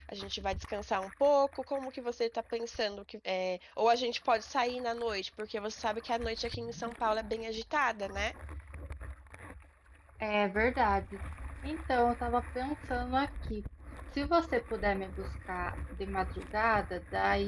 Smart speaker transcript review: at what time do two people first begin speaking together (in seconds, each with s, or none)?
none